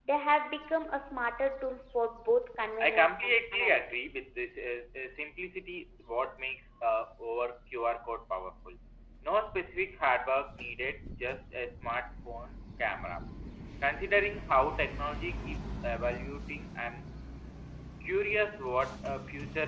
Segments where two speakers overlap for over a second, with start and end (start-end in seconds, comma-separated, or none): 2.8-4.2